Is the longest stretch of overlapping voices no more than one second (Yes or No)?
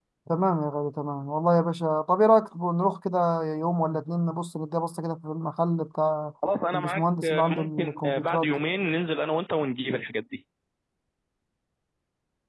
No